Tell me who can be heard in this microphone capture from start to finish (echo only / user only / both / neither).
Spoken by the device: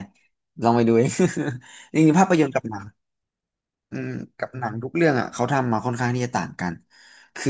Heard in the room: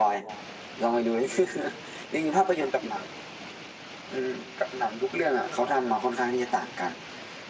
echo only